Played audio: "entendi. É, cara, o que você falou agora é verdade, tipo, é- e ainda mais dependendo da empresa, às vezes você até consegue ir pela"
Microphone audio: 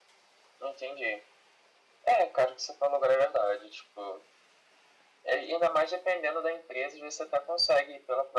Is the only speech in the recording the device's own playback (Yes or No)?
Yes